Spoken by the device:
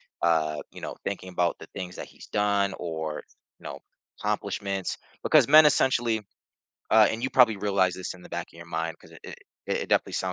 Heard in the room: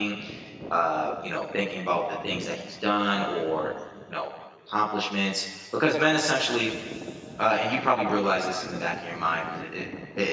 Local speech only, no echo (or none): none